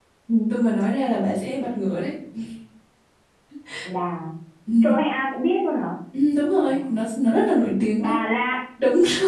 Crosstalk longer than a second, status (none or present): none